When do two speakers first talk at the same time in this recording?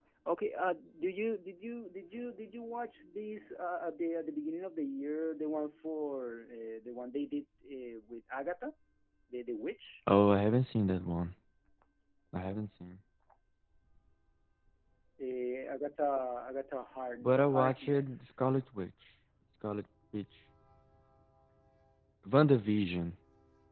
17.2 s

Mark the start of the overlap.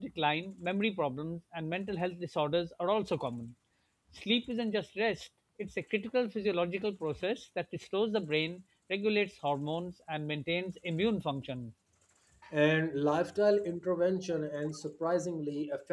none

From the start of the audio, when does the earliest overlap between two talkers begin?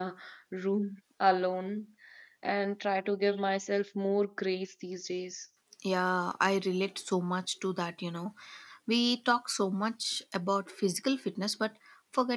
none

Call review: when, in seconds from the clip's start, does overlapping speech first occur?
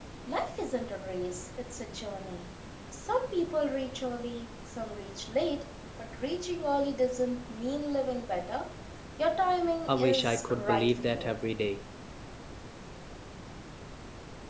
9.9 s

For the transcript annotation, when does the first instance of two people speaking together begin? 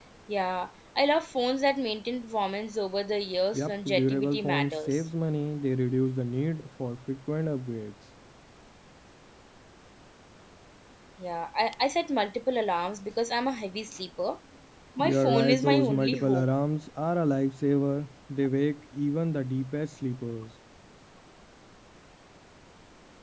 3.5 s

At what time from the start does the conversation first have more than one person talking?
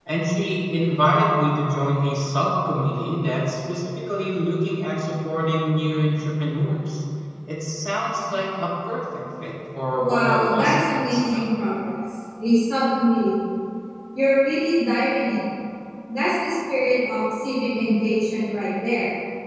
10.0 s

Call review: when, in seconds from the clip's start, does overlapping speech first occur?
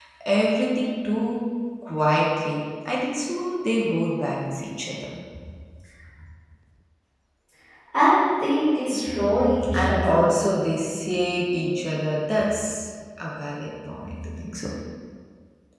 8.9 s

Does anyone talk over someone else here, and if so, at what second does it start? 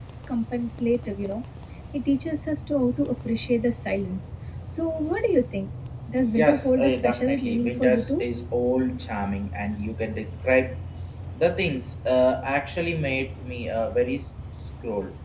6.2 s

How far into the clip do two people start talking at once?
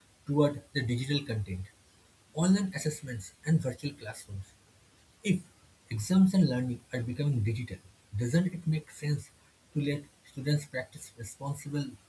none

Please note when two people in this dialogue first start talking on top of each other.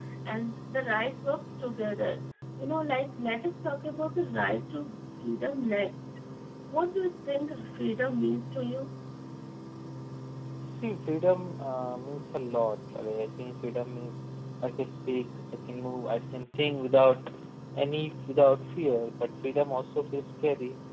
none

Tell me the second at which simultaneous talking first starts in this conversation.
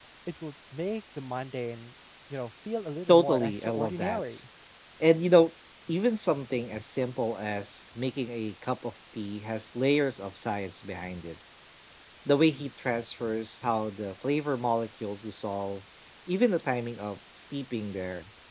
3.1 s

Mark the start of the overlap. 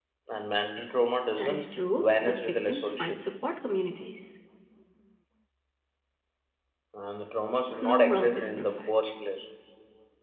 1.4 s

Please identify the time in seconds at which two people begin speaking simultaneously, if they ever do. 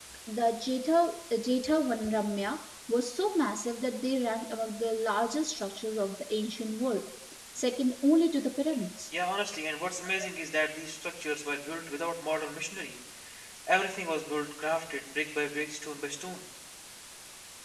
none

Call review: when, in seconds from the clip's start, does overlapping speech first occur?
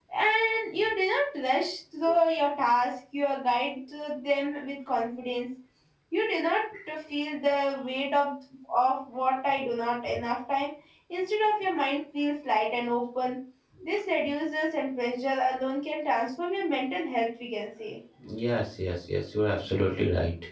none

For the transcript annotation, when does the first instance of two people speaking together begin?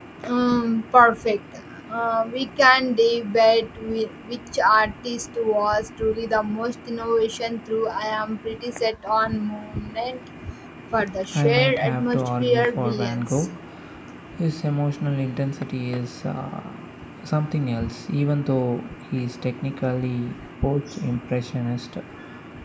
11.3 s

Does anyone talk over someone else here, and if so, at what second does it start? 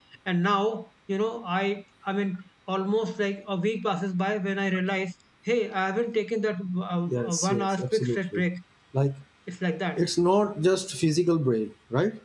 7.1 s

